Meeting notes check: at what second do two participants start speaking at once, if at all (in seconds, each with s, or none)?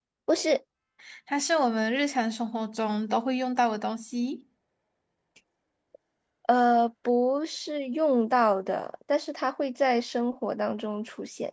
none